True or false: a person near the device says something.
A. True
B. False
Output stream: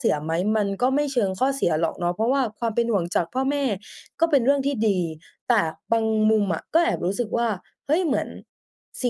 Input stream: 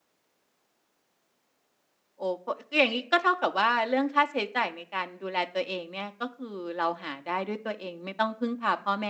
A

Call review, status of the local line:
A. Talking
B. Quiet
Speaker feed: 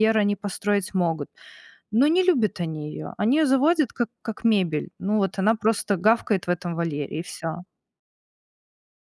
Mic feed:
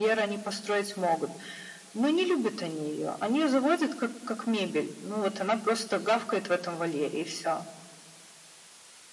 B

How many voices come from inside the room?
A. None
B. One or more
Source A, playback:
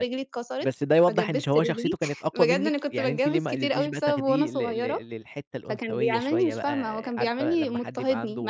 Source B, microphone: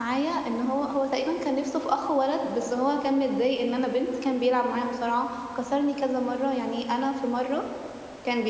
B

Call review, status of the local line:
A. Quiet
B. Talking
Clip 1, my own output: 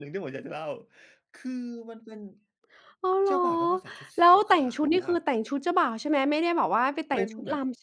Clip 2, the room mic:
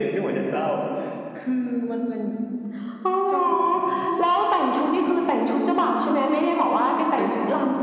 A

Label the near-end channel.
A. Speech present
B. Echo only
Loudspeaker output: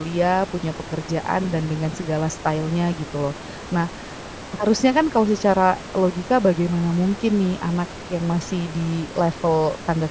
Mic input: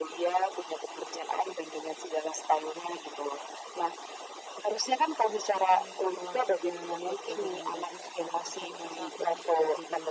A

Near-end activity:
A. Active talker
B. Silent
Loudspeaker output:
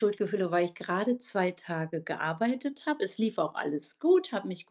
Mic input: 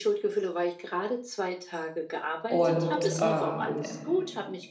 A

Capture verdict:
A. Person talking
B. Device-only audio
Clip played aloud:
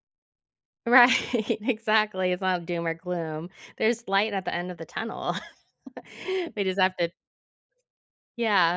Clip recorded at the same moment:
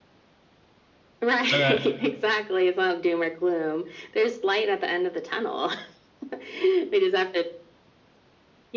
A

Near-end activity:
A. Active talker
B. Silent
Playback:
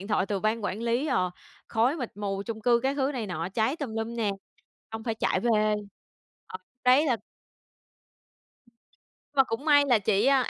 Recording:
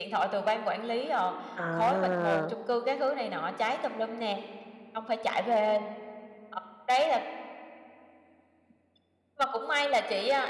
A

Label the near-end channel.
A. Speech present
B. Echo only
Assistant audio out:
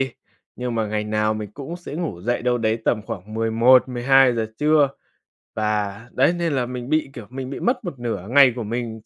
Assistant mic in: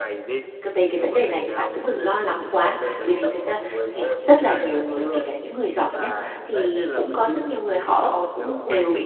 A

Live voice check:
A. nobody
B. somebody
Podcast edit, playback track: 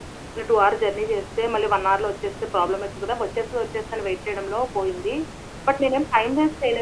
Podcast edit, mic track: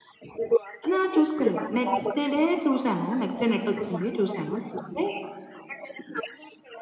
B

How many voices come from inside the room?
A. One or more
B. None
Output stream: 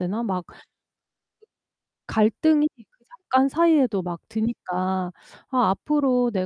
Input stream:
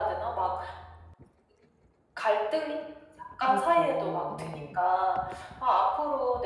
A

